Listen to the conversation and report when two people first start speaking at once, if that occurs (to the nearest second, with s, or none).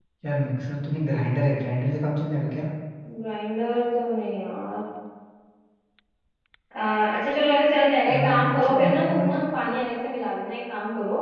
8 s